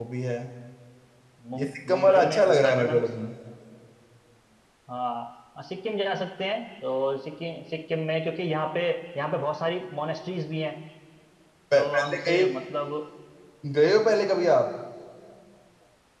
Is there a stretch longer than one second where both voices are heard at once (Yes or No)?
Yes